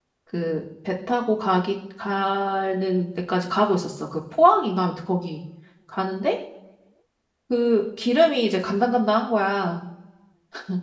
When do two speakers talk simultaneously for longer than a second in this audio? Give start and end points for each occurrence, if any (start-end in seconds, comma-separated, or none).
none